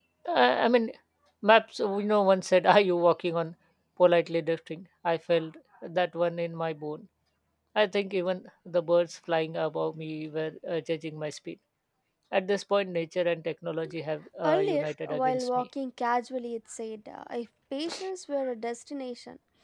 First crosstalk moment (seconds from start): 14 s

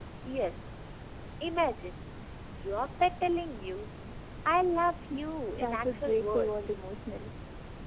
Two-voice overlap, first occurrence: 6 s

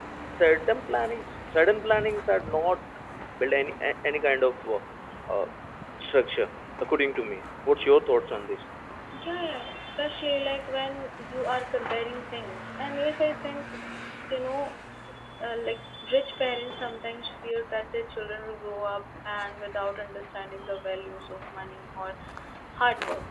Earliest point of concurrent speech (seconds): none

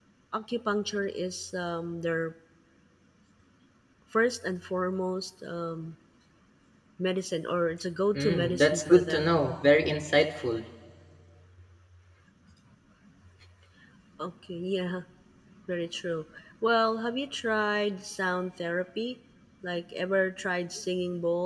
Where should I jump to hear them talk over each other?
8 s

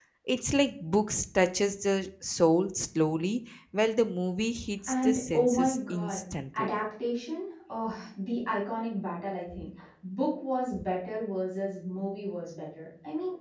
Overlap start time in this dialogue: 5 s

